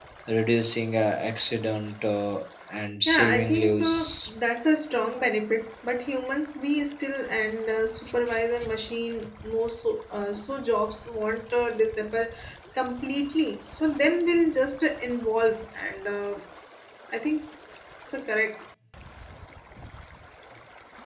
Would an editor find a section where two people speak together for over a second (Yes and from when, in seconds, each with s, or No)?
Yes, from 3.0 s